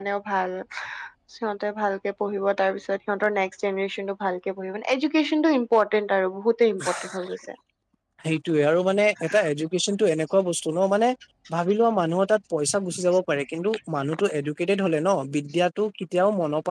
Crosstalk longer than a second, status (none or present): none